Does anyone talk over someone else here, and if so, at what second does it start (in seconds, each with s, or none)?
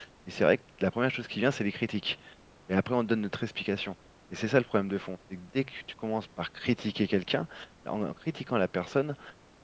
none